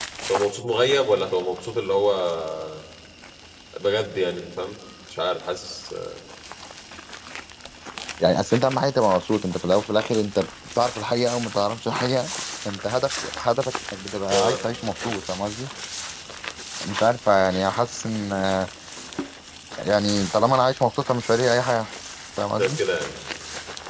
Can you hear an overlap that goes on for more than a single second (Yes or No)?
No